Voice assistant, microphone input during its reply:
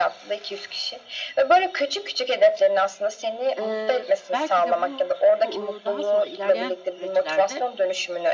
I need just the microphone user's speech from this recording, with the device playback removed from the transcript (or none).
eee, belki de bu bu, ııı, daha sonra ilerleyen süreçlerde